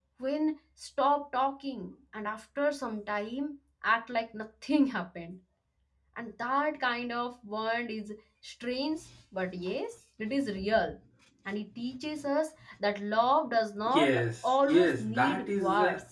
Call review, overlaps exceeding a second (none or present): present